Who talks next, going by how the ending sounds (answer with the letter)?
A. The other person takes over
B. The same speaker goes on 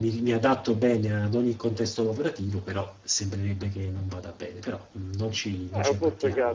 A